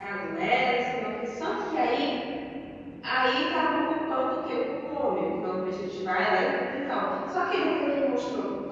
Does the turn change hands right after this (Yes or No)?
No